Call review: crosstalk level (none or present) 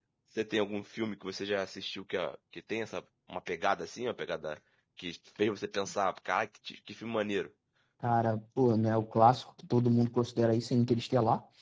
none